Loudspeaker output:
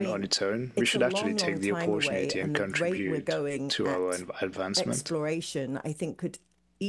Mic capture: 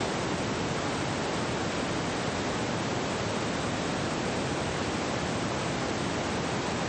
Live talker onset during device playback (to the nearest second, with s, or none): none